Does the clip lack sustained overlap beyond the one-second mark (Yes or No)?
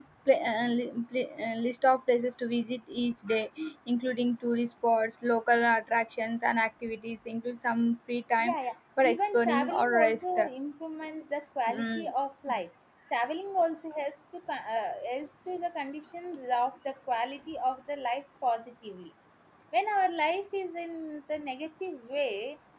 No